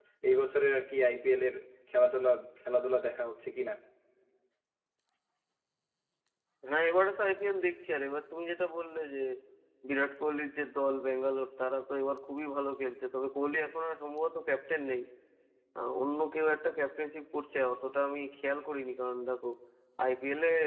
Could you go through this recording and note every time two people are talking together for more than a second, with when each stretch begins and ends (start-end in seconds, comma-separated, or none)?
none